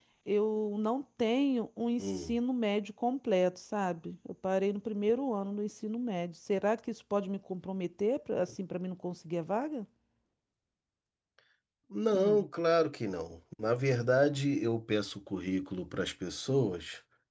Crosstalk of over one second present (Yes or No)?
No